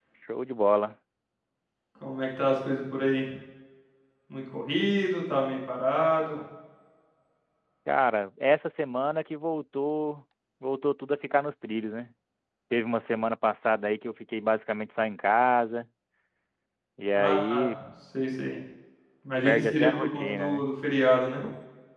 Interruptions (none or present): present